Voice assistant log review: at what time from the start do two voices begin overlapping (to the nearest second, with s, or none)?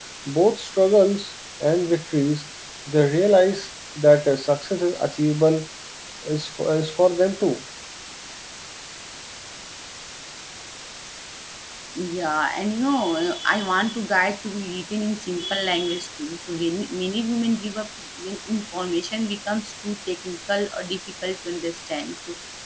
none